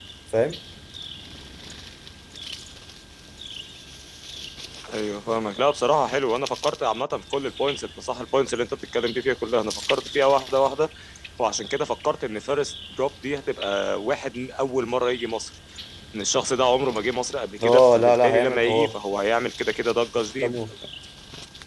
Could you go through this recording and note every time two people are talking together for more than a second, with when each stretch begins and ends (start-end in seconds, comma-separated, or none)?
17.6-18.9